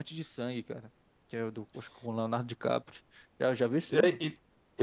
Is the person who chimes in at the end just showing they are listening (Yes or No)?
No